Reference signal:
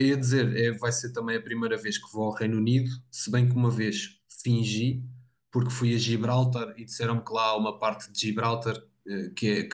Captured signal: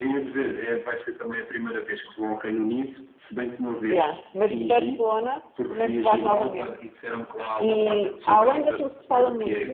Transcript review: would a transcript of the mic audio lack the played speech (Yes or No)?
No